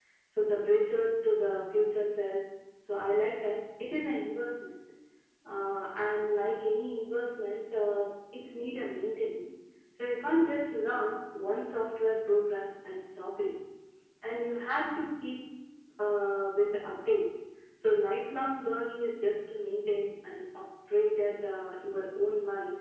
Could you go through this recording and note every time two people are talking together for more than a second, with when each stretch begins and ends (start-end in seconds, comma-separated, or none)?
none